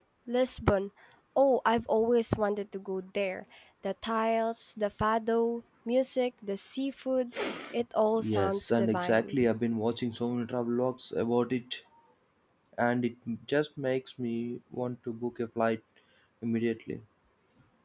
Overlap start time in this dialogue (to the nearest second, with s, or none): 8 s